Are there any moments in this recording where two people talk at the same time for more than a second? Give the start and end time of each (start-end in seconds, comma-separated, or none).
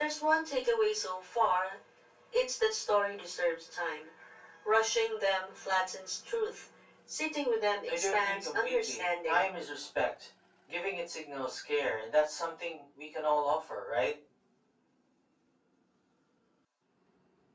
7.9-9.5